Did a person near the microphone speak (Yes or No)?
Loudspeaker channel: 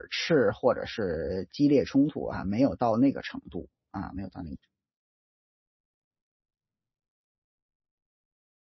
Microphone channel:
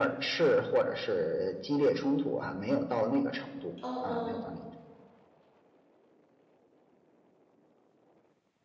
Yes